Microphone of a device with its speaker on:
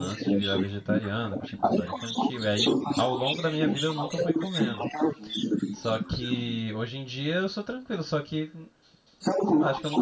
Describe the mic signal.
both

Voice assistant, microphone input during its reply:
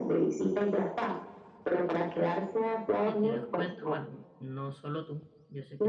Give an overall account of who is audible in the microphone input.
both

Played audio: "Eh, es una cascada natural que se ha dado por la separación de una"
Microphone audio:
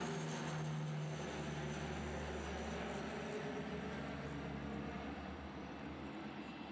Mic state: neither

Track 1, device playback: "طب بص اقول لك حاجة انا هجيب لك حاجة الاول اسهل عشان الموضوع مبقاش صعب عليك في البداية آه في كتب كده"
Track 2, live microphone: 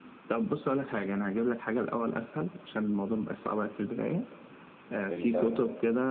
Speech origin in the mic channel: both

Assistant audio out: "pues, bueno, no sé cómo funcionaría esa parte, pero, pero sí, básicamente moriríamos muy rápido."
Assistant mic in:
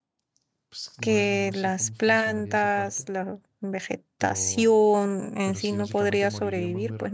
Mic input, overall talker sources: both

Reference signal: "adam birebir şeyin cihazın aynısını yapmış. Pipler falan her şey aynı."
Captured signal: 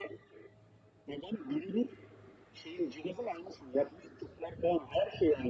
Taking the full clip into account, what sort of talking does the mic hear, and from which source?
echo only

